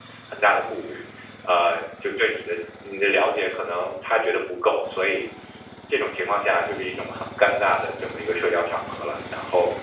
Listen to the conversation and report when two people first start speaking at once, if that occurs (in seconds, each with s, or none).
none